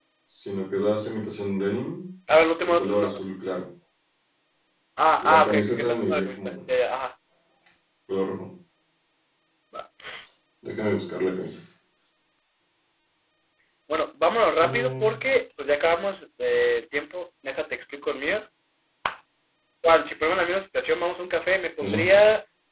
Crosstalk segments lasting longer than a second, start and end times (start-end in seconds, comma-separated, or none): 5.2-6.5